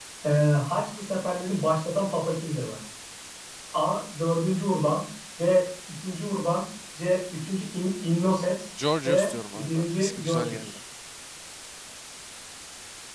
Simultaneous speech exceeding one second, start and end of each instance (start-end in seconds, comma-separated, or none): 9.0-10.8